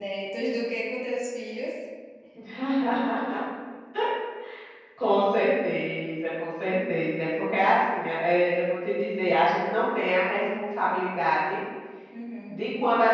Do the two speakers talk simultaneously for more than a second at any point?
No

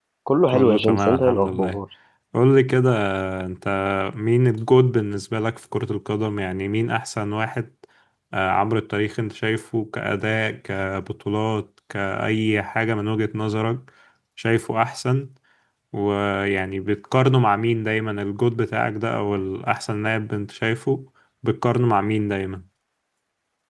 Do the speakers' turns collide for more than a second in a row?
Yes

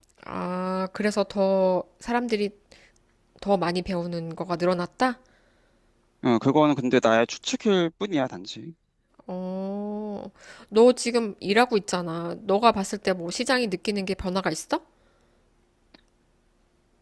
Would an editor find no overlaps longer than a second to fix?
Yes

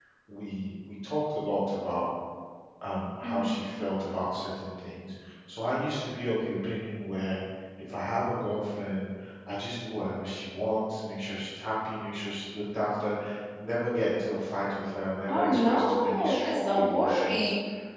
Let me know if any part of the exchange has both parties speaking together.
Yes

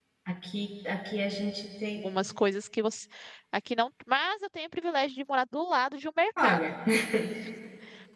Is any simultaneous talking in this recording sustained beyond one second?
No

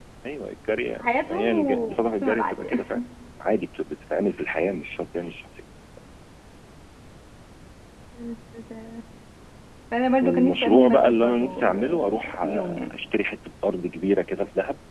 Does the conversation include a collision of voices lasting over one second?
Yes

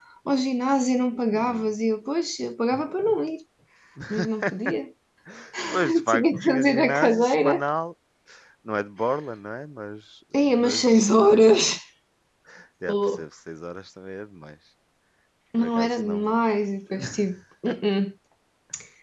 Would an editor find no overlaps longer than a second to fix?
No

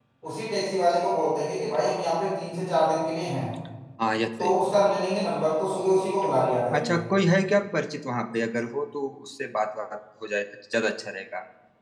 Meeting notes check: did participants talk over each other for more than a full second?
No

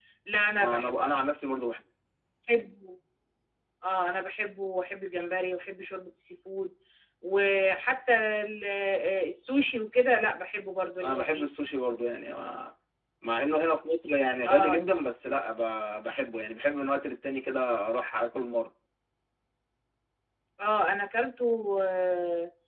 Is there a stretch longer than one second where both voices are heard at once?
No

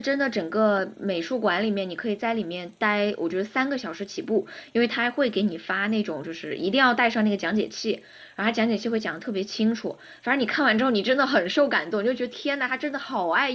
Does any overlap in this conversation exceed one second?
No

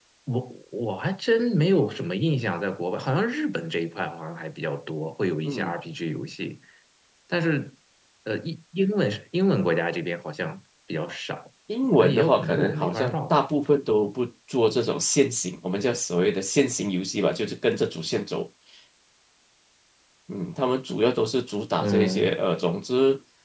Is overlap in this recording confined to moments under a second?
No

